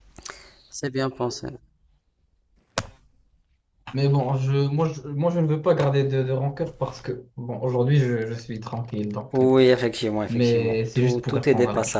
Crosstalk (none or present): present